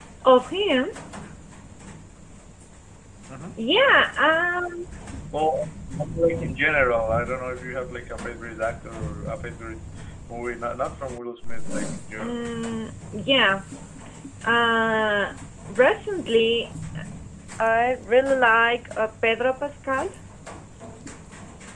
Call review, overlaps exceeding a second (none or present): none